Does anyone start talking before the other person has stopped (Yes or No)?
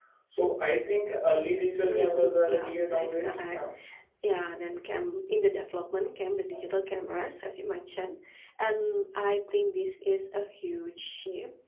Yes